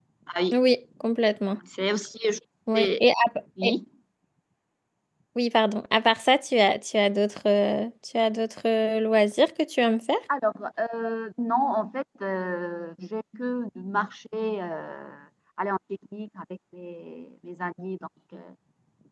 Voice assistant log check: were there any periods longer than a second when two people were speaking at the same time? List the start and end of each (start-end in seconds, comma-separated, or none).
none